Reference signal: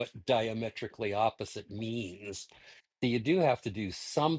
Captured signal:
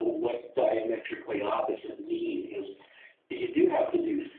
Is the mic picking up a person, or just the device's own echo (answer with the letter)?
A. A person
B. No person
B